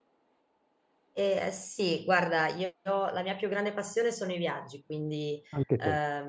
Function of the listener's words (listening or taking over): listening